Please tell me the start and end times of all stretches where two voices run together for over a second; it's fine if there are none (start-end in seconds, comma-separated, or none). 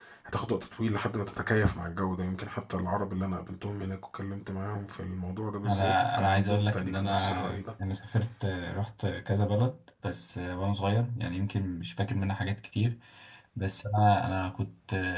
5.6-7.6